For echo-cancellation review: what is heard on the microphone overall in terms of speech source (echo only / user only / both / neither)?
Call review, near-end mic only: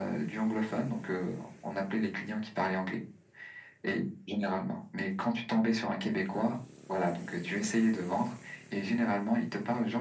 echo only